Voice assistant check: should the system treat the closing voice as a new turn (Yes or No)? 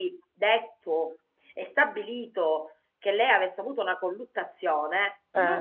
No